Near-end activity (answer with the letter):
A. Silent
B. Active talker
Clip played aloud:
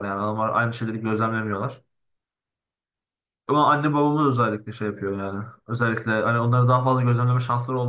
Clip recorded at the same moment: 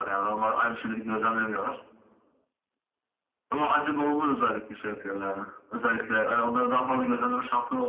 A